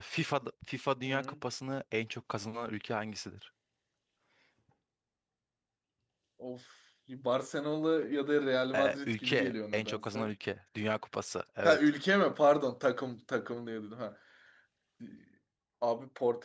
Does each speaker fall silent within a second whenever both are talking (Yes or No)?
No